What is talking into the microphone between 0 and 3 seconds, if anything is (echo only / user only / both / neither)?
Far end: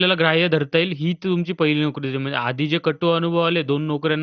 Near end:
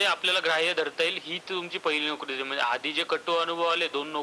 echo only